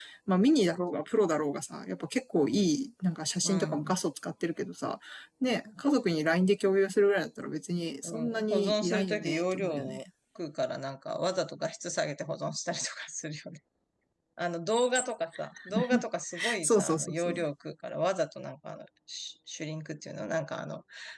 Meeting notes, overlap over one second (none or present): present